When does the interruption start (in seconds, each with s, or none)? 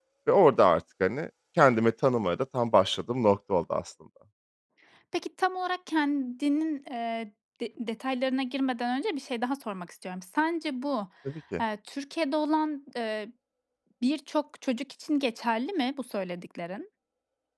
none